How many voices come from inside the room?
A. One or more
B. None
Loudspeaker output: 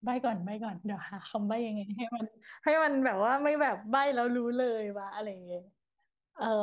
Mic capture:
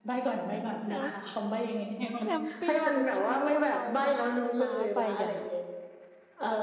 A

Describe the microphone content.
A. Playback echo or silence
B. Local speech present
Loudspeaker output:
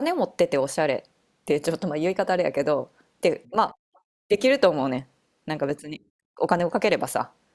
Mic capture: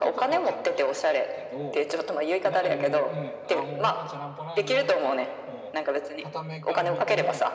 B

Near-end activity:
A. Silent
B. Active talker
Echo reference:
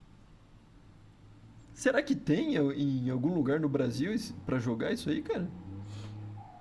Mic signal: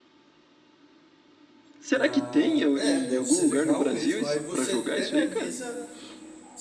B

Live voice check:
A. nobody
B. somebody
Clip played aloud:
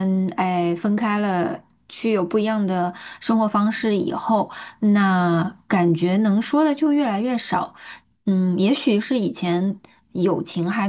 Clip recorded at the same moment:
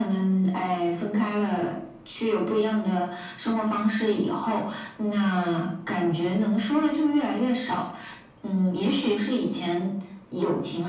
A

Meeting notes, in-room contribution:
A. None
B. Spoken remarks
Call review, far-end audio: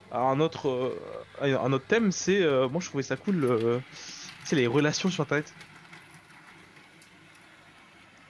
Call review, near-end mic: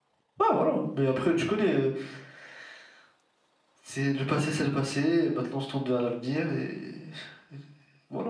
B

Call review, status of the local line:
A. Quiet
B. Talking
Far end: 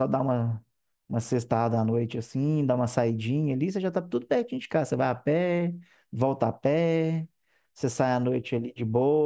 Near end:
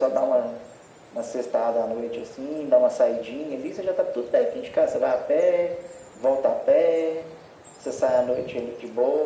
A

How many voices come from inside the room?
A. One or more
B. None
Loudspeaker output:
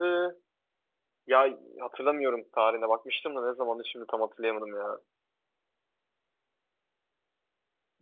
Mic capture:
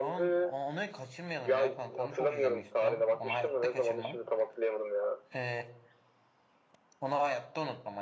A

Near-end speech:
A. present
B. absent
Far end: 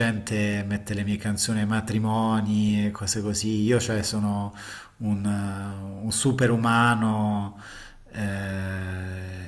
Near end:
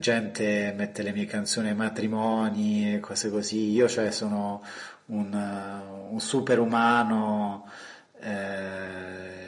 B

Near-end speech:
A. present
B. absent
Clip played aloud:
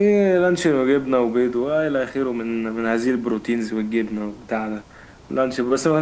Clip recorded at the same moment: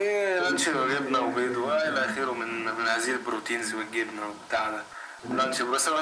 A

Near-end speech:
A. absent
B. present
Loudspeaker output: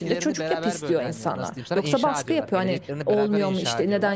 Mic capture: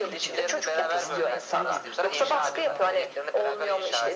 B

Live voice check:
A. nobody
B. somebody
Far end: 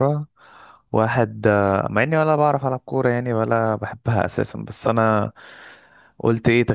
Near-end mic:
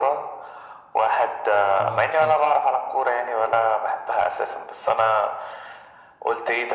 B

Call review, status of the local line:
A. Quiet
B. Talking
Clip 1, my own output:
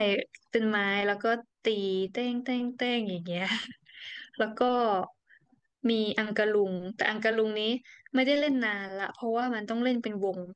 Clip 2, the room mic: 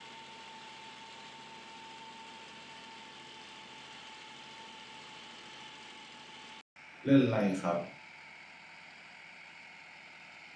B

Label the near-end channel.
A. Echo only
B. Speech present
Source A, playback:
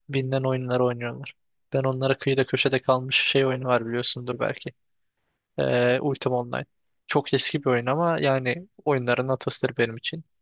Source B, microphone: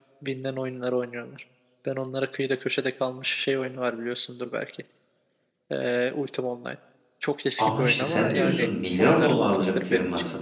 B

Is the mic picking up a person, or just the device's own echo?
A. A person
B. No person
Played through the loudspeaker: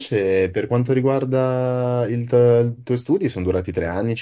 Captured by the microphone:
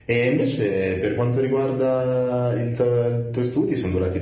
B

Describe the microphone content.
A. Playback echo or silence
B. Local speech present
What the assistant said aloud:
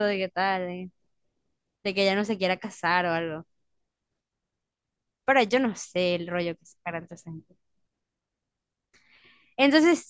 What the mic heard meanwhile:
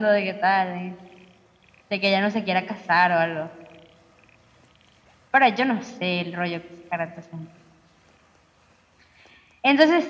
A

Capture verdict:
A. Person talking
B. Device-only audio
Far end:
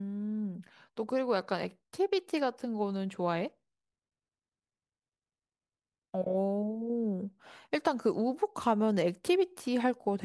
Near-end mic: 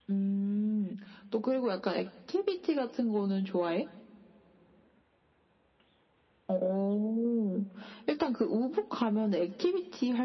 B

